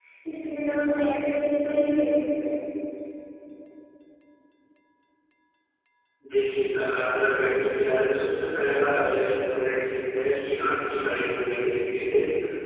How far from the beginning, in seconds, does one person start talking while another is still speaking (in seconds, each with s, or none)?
none